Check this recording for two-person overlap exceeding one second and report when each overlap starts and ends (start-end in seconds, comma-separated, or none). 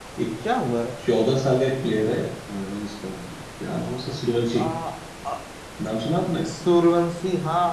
none